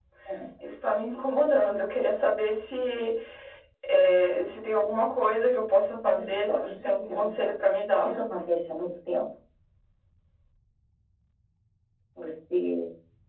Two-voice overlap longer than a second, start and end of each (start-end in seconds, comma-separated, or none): 6.0-7.5